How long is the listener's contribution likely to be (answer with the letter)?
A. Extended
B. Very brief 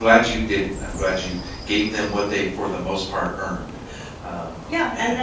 A